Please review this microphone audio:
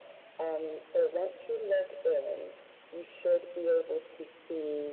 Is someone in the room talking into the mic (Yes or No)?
No